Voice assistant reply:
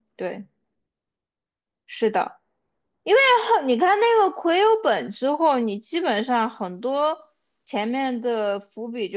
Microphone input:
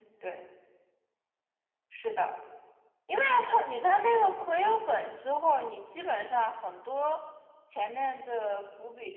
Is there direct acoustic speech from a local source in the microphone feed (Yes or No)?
No